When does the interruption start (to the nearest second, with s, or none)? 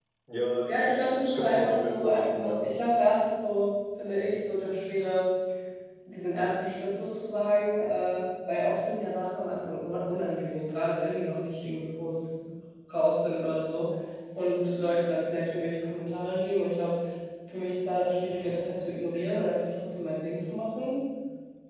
1 s